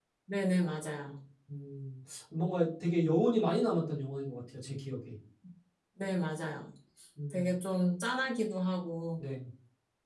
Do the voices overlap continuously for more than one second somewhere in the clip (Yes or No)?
No